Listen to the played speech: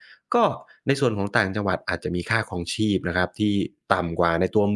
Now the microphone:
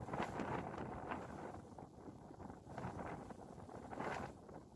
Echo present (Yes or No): No